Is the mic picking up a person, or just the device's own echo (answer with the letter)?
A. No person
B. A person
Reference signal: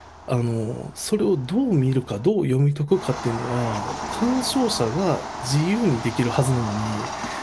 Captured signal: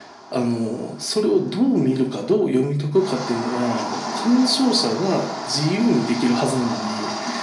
A